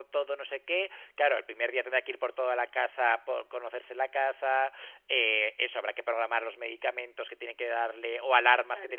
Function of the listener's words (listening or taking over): listening